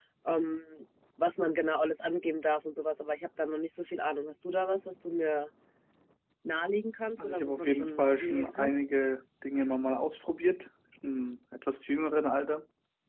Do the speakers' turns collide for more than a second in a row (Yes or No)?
Yes